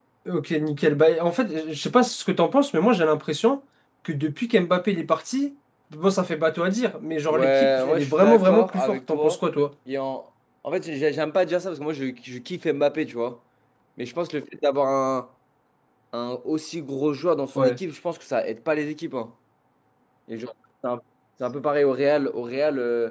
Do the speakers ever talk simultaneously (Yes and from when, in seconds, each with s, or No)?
Yes, from 7.3 s